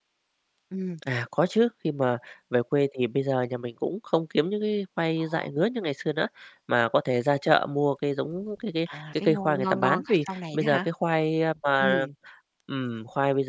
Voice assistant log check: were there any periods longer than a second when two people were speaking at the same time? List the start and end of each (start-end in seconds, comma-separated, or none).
8.9-10.9